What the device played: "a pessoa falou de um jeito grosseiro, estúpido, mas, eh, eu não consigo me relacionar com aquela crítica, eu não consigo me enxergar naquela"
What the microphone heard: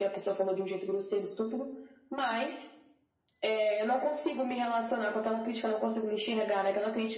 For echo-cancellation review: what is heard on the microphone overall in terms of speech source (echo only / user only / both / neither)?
echo only